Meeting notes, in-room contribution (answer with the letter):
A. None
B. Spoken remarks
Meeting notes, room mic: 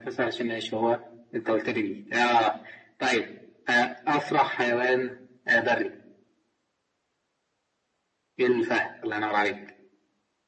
A